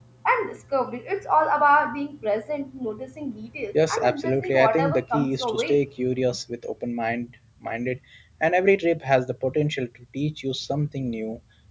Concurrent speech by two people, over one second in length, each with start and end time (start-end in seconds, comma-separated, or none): 3.9-5.8